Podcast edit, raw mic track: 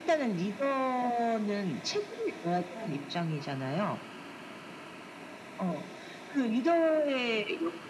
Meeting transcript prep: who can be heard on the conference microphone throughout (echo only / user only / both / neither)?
both